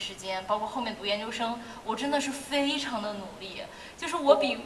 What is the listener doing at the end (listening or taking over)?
listening